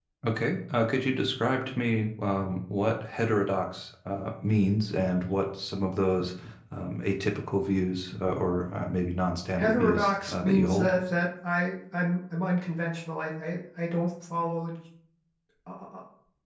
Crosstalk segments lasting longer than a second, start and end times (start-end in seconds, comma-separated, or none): 9.6-10.9